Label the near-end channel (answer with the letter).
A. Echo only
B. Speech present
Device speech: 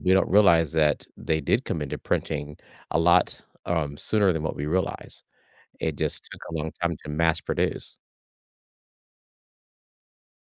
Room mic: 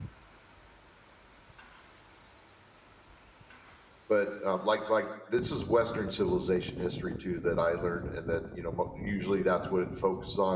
B